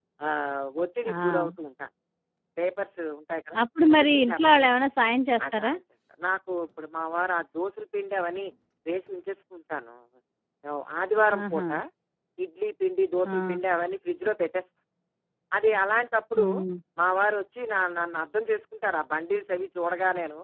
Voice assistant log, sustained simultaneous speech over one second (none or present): none